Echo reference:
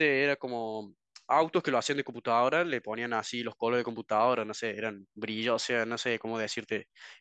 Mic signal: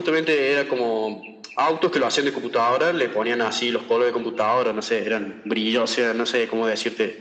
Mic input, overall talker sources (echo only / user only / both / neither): echo only